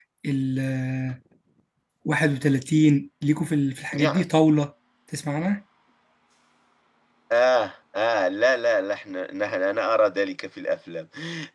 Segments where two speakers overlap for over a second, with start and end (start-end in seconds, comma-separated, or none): none